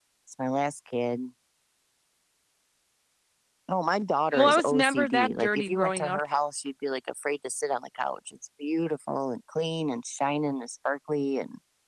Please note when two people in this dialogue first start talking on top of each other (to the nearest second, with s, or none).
4 s